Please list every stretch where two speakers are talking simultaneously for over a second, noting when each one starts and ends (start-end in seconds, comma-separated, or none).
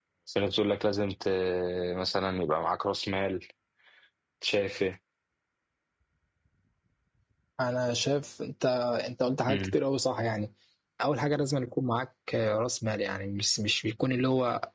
none